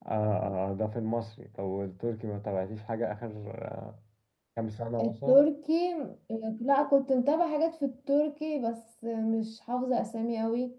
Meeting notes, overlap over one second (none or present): none